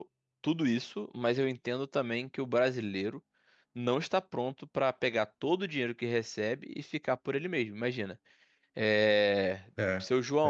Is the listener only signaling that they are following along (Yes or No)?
Yes